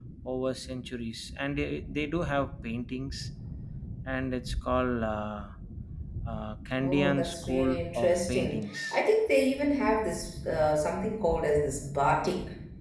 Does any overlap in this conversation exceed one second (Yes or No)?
Yes